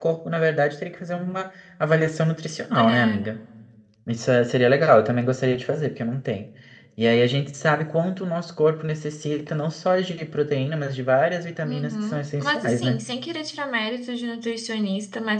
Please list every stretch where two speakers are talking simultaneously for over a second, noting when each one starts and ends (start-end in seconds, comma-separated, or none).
11.6-13.0